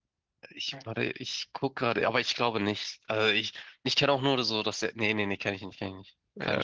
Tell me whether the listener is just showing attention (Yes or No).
No